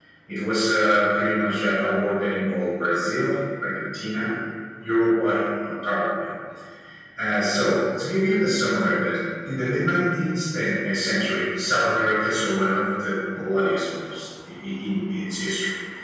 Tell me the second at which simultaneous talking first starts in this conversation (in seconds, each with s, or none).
none